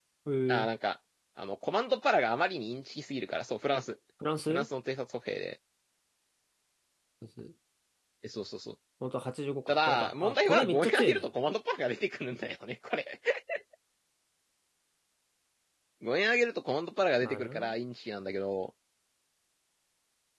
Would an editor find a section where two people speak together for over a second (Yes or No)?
Yes